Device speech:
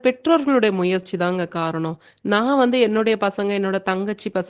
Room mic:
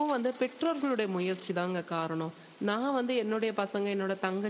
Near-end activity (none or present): none